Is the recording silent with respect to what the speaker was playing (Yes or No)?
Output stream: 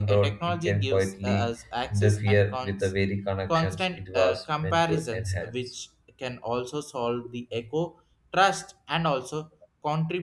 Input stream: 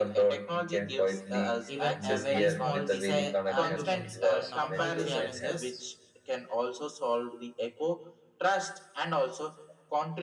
No